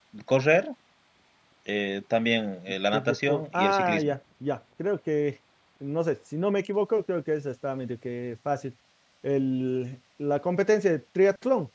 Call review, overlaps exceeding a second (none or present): present